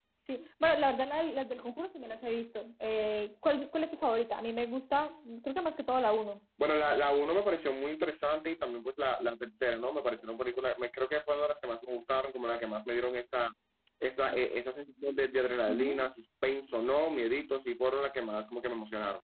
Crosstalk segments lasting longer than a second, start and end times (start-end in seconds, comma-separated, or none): none